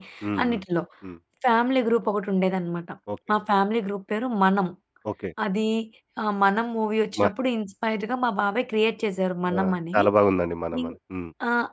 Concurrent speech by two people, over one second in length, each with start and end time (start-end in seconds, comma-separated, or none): none